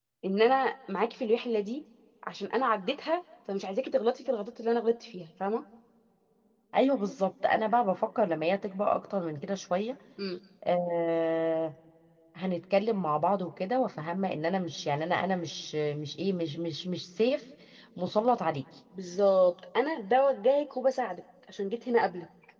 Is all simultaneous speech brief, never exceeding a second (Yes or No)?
Yes